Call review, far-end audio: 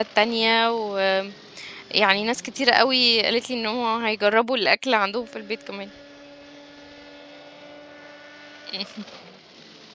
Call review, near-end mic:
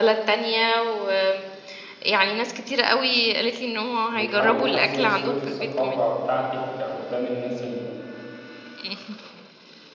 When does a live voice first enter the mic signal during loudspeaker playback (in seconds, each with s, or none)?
4.1 s